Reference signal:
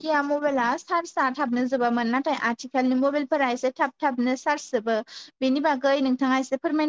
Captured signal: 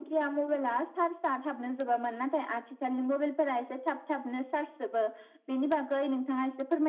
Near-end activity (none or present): none